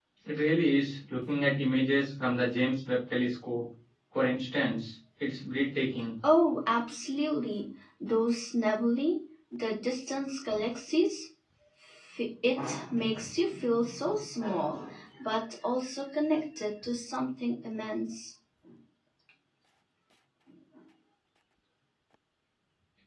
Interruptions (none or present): none